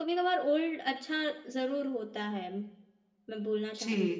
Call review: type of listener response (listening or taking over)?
taking over